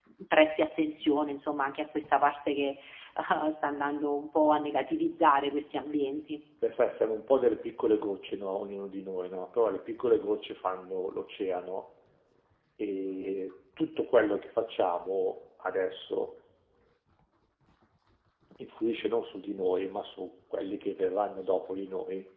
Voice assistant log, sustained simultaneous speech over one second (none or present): none